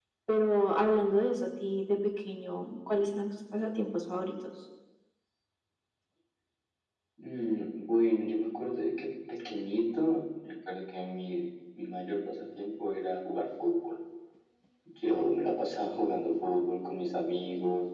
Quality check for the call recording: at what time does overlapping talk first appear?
none

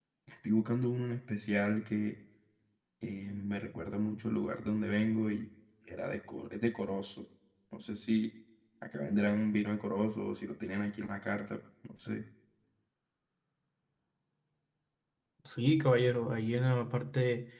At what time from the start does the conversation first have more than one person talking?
none

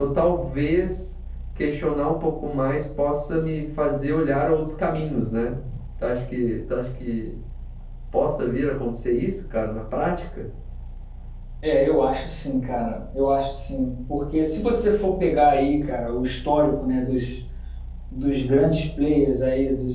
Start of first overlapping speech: none

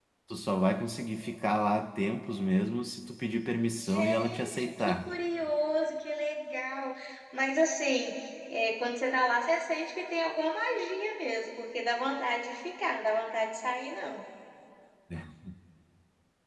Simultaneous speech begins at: 3.8 s

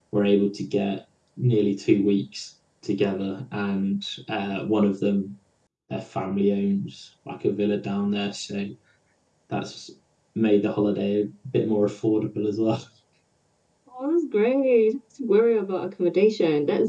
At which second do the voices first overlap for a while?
none

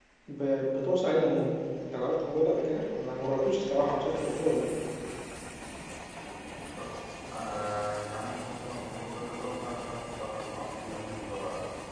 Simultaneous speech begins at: none

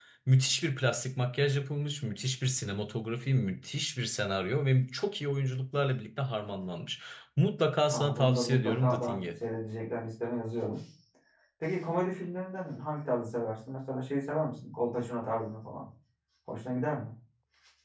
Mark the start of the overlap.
7.9 s

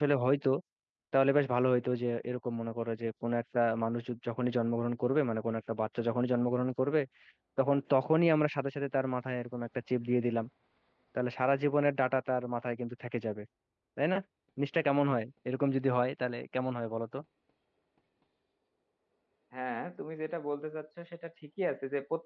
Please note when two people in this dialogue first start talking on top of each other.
none

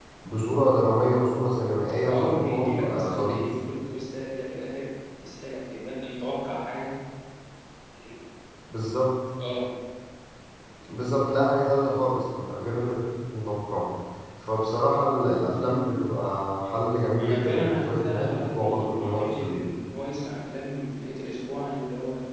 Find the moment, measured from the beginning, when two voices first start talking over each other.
2.1 s

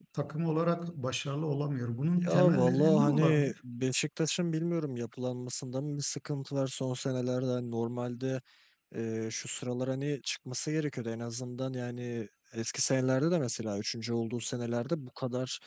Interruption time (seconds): 2.2 s

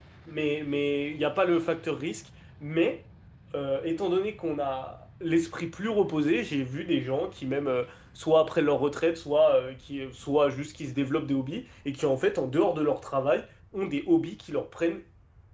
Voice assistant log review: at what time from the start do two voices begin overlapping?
none

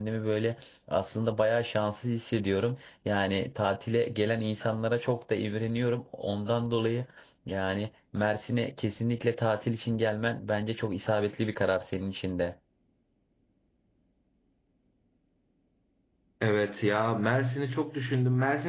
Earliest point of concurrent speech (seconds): none

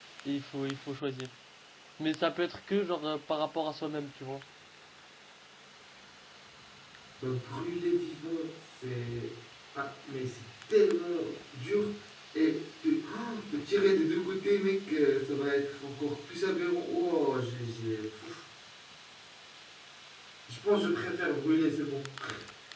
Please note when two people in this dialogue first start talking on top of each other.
none

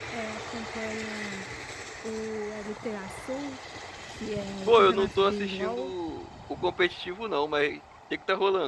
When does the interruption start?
4.7 s

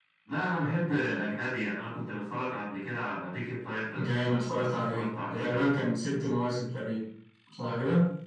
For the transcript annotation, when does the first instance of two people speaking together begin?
4.0 s

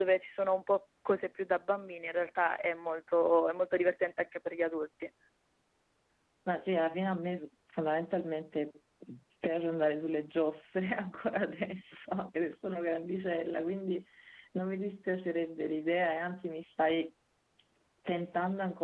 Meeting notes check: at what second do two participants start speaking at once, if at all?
none

